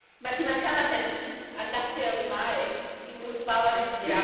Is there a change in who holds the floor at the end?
Yes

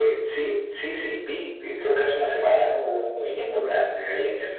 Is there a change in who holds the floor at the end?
No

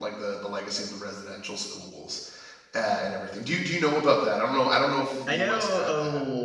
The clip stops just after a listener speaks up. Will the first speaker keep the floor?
No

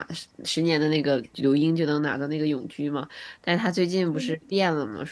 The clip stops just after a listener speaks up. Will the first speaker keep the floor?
Yes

